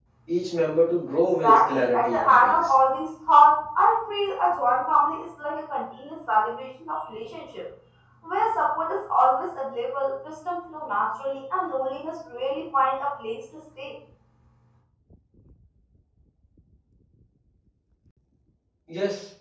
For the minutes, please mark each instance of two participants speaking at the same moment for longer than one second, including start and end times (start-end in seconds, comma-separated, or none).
1.4-2.7